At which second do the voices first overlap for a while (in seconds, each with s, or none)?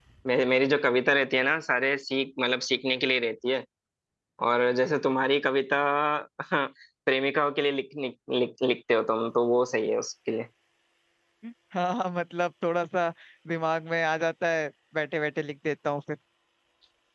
none